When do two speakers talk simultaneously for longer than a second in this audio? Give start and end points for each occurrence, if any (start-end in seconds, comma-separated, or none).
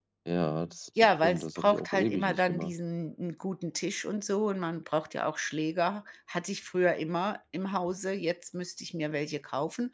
1.0-2.7